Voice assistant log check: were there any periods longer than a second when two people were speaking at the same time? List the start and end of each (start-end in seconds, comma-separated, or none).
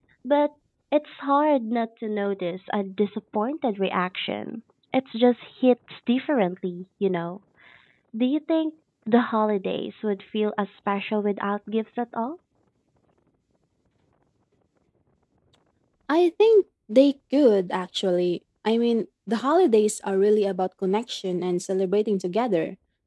none